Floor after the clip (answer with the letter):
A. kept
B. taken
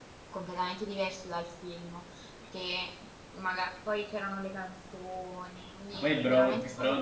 B